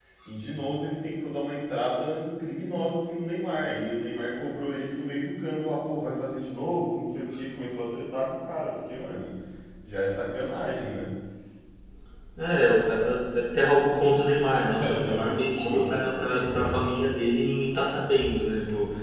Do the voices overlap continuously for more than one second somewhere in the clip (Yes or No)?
Yes